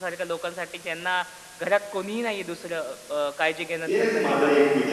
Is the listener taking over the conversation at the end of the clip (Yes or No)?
Yes